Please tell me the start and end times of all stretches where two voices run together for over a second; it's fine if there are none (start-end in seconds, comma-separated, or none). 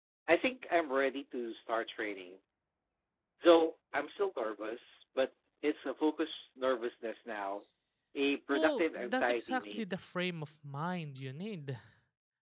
8.5-9.8